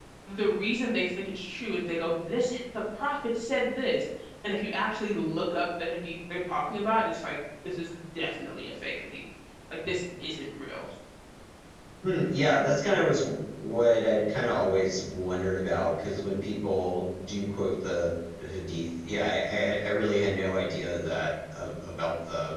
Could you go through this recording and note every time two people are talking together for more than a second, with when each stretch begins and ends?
none

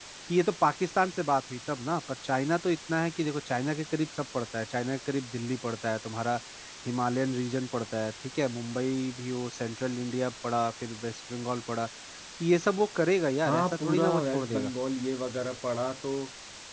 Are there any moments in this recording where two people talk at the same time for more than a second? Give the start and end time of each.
13.4-14.7

